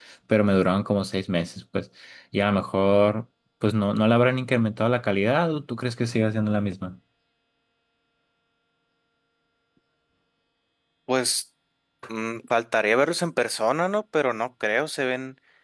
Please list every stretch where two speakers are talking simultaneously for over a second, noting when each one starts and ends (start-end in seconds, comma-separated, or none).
none